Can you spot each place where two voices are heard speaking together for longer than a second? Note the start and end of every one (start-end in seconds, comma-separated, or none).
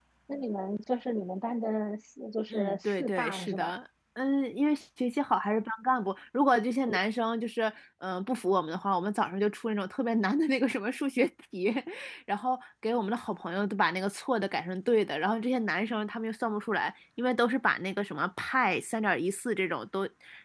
2.5-3.7